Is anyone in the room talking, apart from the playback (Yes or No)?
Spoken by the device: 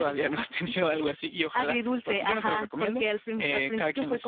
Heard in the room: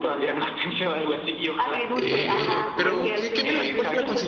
Yes